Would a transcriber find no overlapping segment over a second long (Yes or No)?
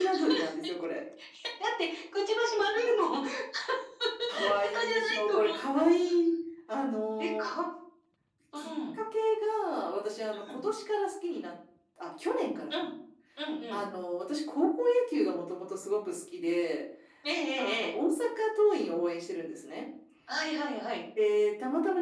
No